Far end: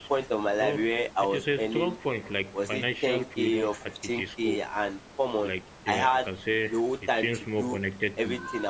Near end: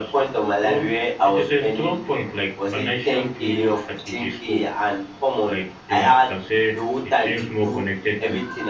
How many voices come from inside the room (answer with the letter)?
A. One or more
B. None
B